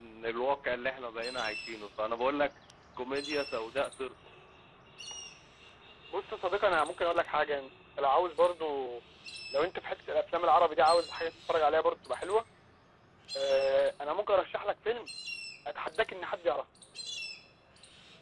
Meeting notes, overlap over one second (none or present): none